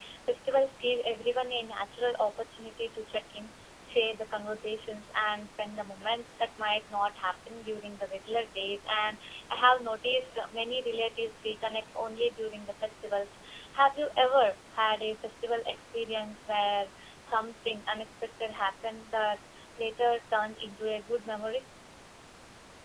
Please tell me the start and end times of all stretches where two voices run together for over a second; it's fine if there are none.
none

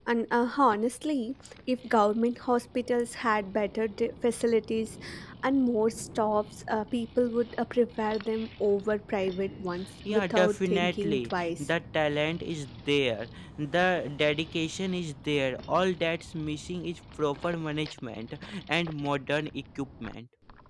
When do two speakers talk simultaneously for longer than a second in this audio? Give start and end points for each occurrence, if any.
10.1-11.7

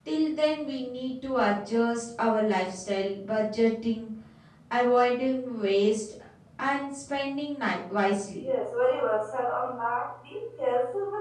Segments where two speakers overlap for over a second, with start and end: none

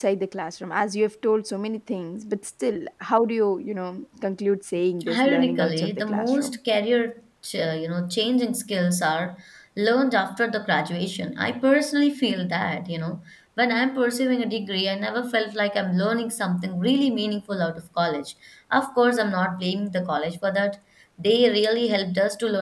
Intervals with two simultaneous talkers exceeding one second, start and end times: 5.1-6.6

